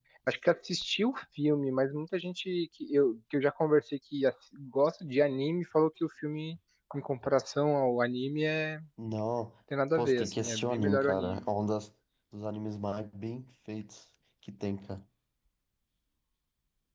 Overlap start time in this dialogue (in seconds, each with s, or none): 9.9 s